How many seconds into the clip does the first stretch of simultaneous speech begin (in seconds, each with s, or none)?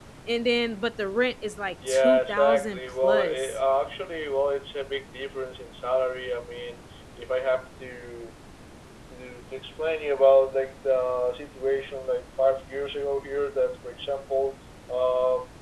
1.8 s